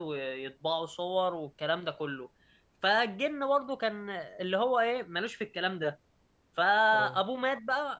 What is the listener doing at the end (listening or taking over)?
listening